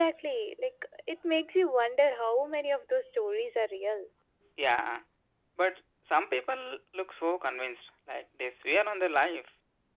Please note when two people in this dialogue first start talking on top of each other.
none

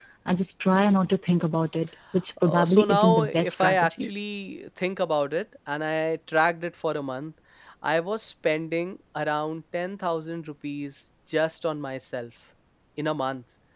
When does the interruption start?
2 s

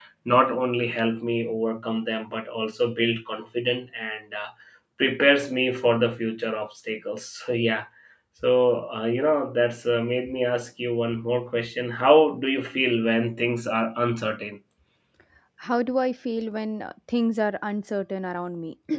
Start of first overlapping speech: none

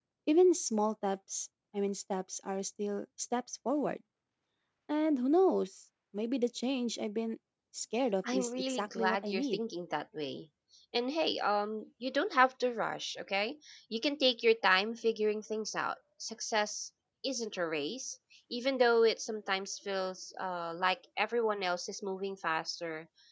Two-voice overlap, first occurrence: 8 s

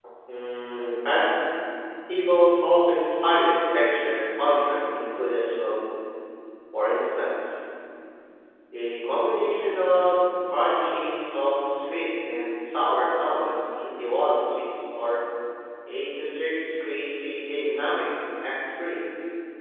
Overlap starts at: none

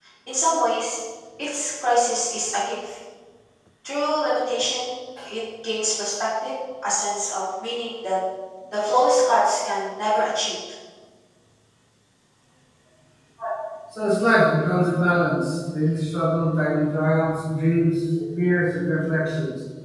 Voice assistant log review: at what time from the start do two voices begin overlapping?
none

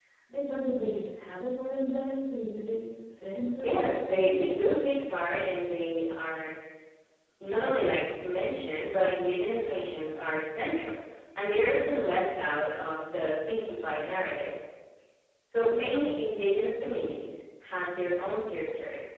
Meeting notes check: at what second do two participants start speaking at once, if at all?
4 s

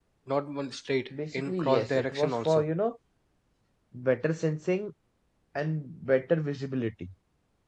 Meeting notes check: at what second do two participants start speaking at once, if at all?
1 s

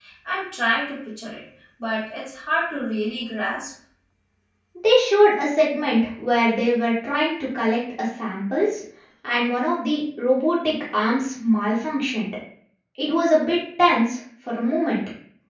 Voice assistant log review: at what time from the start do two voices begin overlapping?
none

